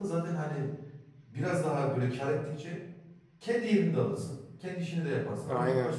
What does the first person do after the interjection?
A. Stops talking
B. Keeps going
B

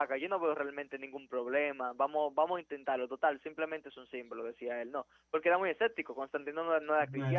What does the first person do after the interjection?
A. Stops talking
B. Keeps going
A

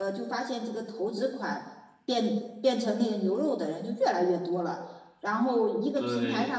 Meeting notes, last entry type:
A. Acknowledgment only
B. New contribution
A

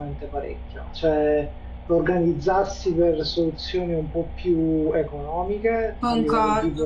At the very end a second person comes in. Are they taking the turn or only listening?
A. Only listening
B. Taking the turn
A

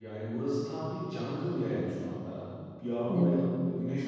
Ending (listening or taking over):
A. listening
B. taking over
A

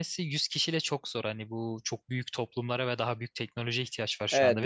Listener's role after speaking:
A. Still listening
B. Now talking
B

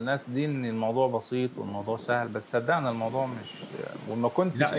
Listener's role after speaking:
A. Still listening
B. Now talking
B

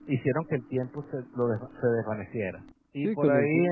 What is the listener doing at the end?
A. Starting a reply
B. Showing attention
A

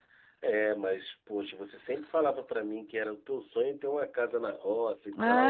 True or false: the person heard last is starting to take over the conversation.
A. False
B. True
B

